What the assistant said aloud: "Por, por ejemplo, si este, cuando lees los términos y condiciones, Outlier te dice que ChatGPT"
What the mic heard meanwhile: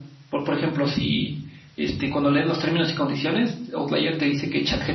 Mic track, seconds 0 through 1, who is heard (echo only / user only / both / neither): echo only